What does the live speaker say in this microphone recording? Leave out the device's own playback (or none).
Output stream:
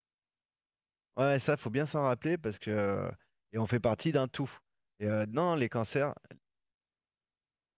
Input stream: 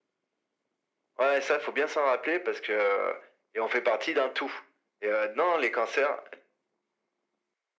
none